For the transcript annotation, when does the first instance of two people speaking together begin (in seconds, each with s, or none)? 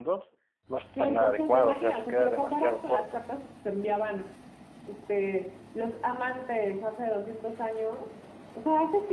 1.0 s